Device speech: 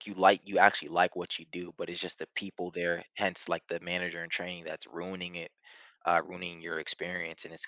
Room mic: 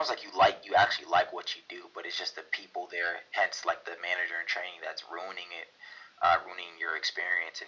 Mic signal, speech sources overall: echo only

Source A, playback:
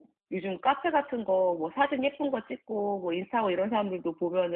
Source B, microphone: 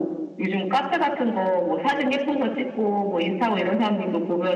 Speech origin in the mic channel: echo only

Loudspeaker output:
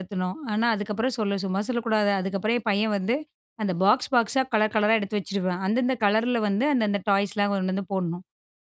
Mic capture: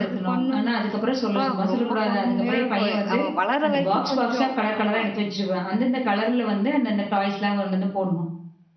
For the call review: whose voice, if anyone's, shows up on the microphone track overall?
both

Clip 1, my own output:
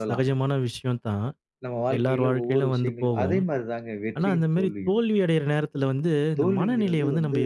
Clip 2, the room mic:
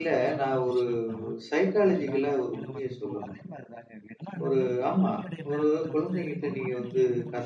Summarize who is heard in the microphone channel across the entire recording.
both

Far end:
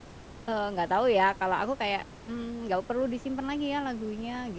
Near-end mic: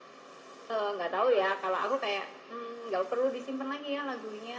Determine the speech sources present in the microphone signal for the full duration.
echo only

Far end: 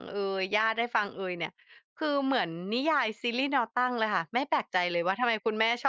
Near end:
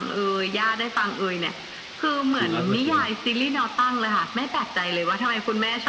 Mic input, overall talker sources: both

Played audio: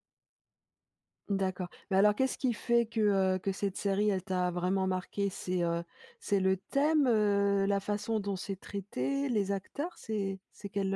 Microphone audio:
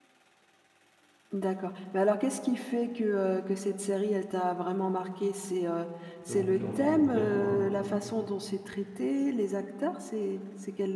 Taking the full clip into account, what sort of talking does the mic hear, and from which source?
both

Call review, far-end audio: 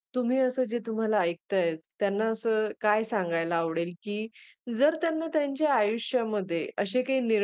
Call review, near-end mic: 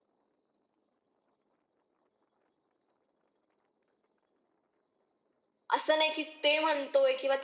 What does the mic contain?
user only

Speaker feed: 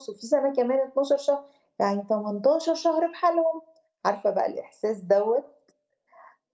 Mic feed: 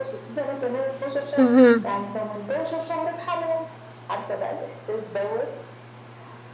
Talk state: both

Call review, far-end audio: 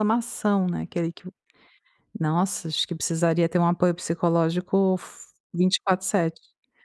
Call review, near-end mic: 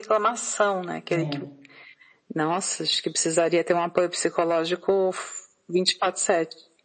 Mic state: both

